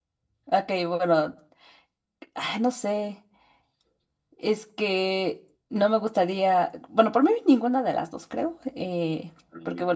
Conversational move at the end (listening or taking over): listening